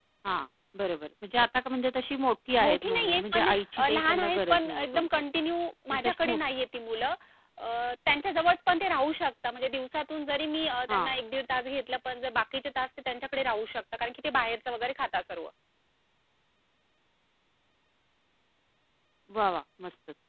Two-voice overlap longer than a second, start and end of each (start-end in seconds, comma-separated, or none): 2.6-5.2